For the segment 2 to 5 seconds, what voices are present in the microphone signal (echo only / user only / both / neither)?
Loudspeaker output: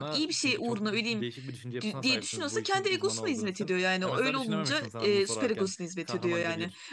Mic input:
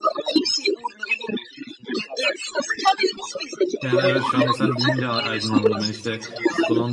both